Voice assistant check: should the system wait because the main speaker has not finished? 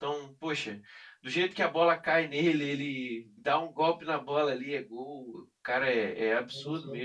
No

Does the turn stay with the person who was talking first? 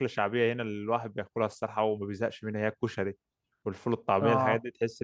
Yes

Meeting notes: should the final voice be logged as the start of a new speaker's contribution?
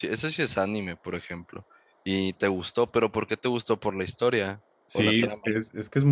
Yes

